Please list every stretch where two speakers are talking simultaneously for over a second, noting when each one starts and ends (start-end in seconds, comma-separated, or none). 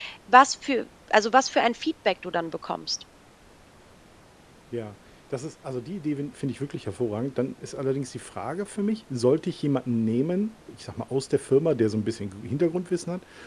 none